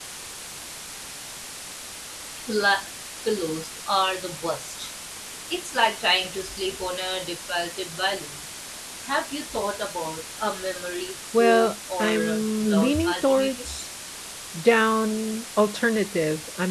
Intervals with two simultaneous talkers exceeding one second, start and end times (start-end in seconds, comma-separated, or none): 11.4-13.7